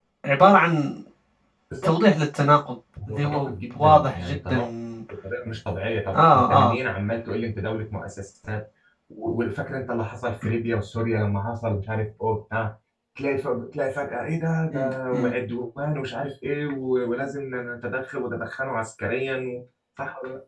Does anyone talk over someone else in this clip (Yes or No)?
Yes